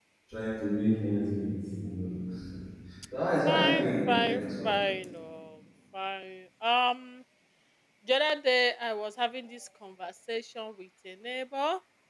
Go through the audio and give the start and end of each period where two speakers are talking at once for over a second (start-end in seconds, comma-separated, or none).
3.5-4.7